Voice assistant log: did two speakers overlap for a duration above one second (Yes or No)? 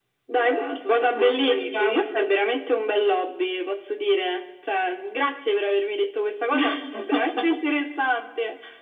Yes